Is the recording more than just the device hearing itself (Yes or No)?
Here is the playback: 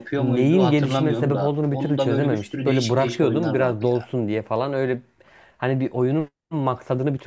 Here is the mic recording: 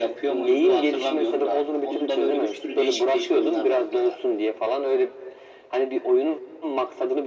No